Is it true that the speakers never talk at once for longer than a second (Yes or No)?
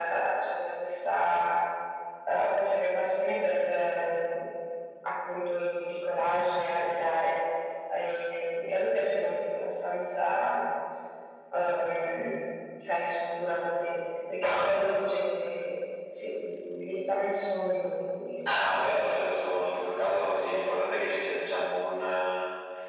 Yes